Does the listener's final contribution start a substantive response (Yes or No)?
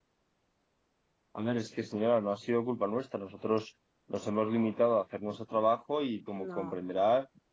No